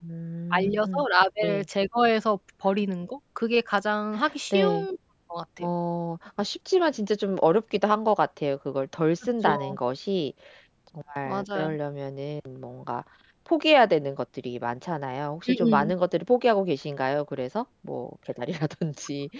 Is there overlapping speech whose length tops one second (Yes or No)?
No